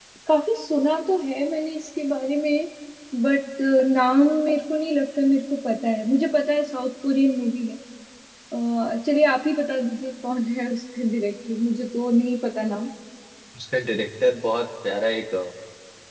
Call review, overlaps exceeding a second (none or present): none